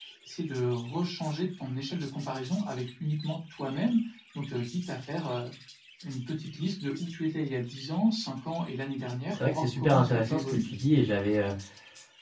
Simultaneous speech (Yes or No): Yes